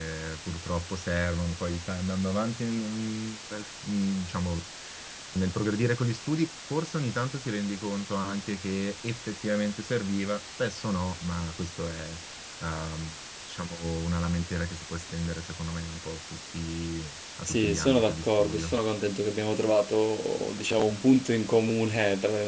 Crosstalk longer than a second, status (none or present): present